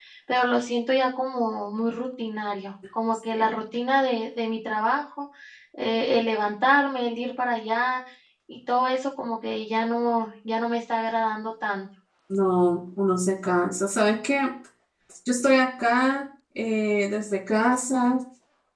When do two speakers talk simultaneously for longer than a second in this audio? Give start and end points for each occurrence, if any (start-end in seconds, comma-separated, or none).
none